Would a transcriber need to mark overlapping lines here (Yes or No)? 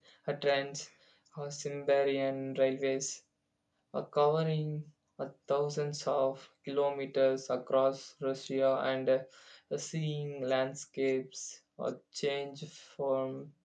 No